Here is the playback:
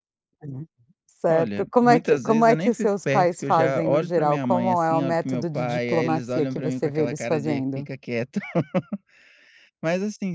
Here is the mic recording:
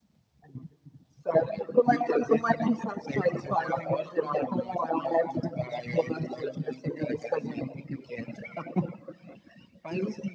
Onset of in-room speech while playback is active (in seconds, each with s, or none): none